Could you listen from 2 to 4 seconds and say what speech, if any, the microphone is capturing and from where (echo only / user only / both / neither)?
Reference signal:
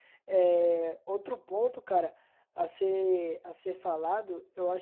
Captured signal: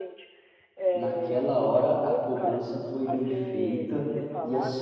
both